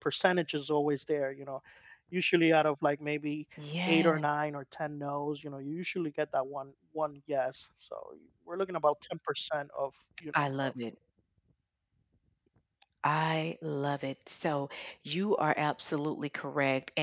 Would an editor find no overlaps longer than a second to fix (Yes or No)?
Yes